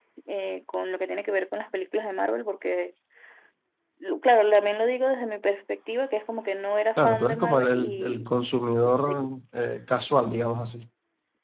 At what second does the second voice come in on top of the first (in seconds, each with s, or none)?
7.0 s